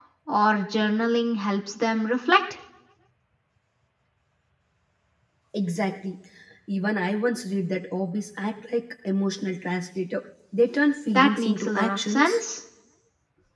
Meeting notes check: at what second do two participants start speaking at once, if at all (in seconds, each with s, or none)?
11.1 s